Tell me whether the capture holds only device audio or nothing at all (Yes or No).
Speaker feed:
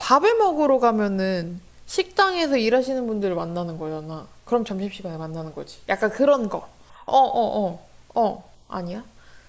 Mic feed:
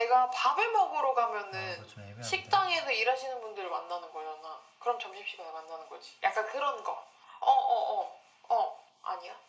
No